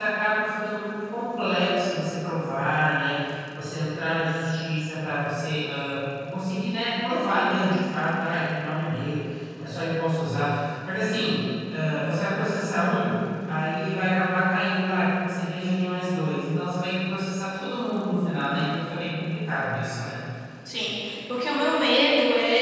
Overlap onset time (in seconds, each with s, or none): none